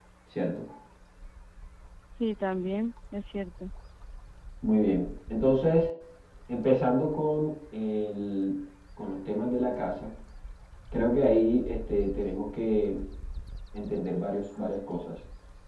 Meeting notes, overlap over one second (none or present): none